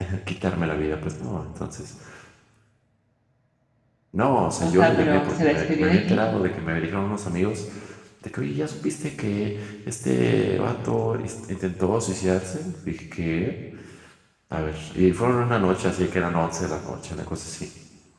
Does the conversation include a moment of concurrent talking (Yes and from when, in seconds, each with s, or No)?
Yes, from 4.6 s